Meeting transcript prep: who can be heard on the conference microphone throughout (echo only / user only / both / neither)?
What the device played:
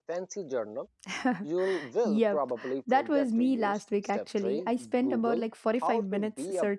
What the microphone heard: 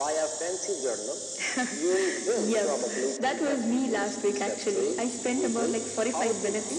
echo only